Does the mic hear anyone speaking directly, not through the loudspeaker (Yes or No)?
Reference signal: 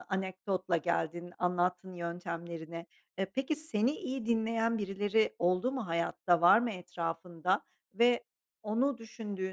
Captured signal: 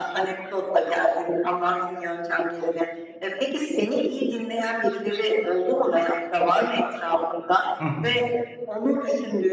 Yes